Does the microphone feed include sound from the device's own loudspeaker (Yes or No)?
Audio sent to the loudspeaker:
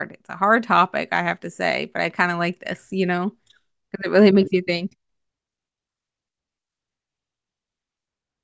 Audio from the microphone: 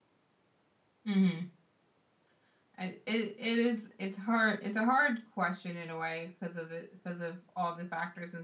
No